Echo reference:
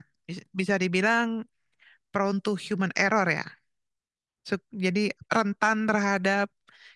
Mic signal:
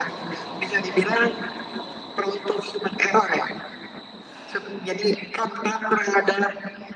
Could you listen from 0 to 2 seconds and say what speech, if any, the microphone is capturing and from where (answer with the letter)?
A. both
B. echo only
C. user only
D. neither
B